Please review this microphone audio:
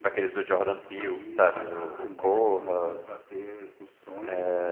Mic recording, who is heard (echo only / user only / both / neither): both